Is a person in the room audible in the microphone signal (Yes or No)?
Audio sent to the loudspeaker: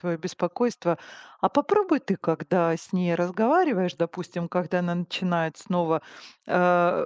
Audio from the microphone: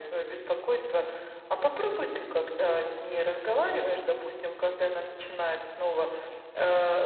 No